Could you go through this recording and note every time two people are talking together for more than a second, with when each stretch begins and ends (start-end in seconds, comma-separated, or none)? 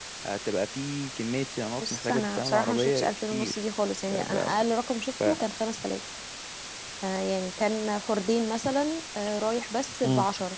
1.8-3.6